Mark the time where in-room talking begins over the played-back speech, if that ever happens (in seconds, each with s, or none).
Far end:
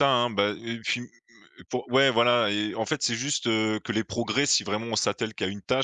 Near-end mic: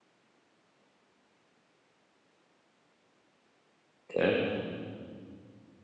4.1 s